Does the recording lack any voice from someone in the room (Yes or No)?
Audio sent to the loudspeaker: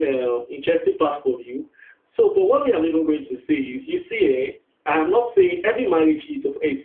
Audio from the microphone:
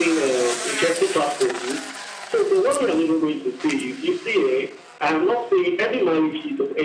Yes